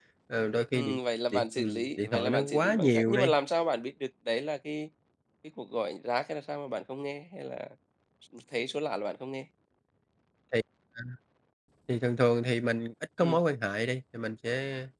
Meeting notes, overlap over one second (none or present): present